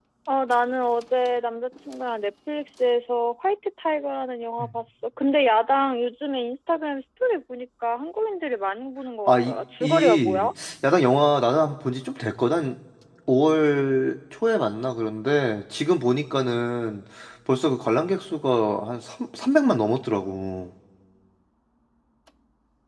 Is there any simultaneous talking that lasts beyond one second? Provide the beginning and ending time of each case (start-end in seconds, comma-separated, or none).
9.3-10.5